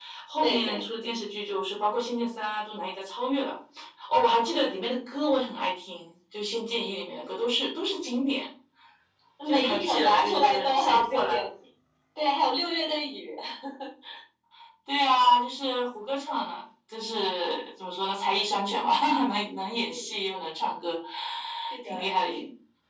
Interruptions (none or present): present